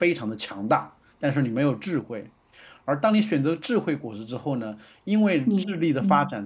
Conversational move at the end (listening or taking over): listening